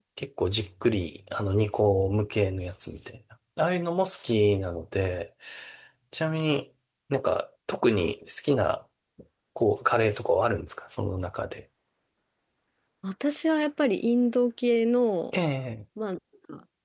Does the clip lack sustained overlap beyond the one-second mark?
Yes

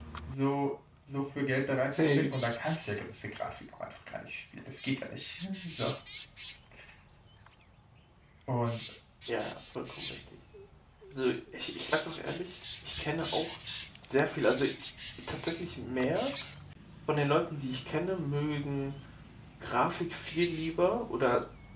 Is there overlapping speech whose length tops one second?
No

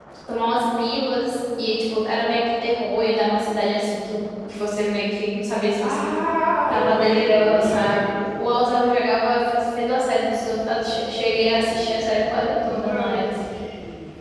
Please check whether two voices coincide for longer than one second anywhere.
Yes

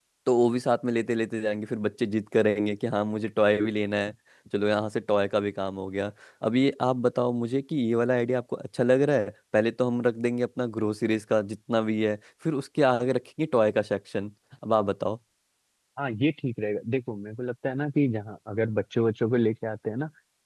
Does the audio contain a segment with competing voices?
No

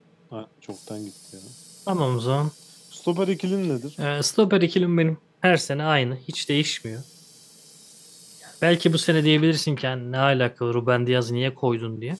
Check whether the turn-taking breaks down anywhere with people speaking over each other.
No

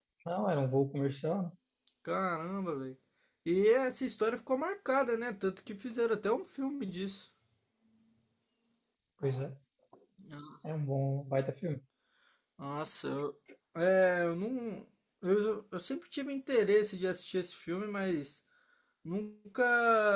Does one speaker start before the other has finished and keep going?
No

